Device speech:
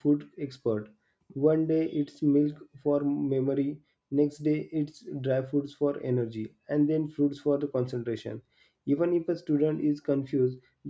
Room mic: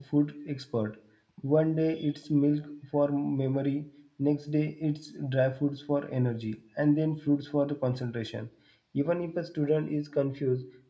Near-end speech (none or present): none